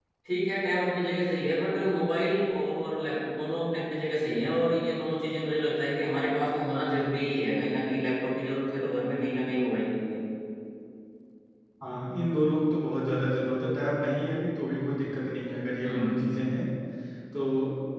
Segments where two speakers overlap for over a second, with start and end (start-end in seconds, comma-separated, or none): none